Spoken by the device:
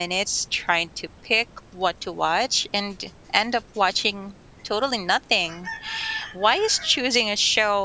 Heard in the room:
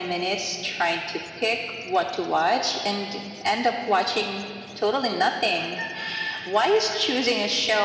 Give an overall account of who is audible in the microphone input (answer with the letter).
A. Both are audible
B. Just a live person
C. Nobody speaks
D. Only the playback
D